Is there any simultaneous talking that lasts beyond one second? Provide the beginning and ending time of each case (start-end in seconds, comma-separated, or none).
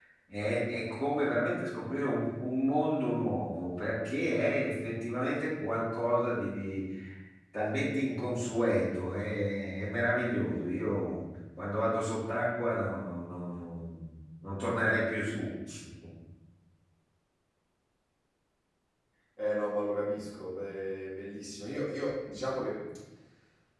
none